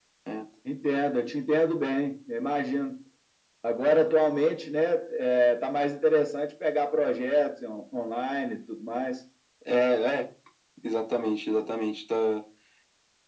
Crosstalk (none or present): none